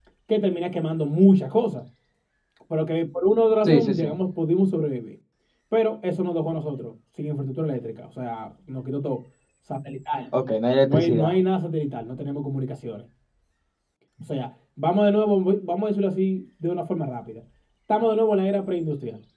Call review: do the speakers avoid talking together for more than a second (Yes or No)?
Yes